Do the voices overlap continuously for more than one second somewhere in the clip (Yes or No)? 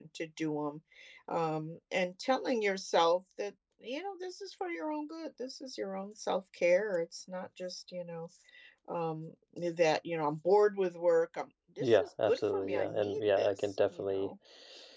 Yes